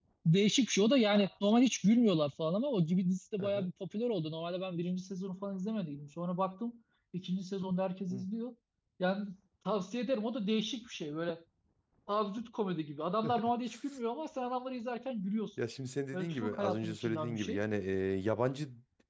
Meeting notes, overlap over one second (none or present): present